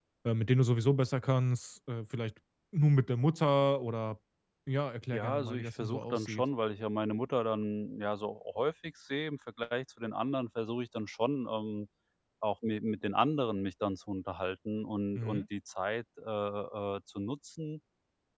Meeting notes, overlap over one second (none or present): present